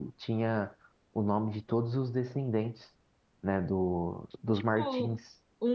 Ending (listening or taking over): taking over